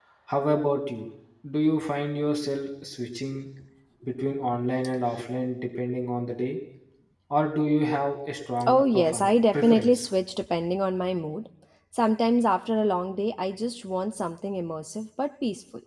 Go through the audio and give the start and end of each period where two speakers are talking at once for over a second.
8.7-10.1

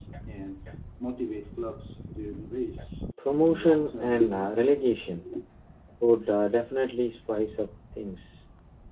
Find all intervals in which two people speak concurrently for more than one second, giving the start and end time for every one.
3.3-4.7

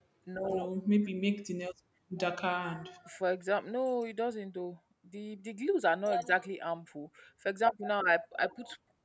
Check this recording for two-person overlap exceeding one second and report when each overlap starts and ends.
none

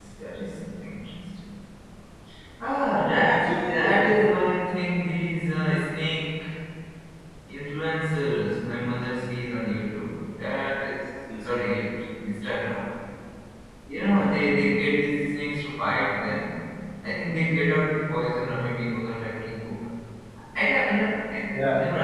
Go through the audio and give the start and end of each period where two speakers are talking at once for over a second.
2.9-4.2

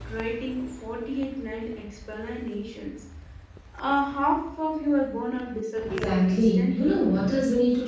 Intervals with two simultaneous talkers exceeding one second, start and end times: 5.8-7.0

